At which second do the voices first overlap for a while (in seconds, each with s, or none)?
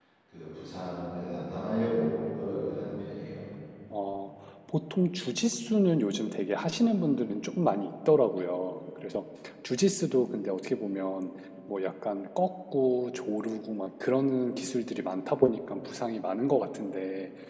none